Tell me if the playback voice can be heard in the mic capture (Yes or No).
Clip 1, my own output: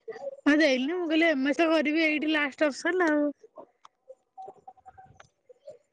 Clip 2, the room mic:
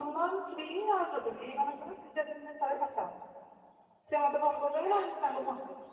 No